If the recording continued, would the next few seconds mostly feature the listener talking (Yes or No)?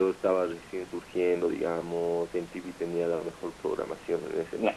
Yes